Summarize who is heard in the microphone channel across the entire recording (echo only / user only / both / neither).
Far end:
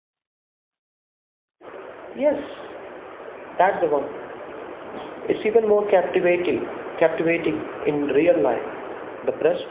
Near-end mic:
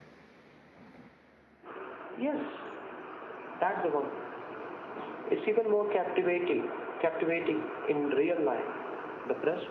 echo only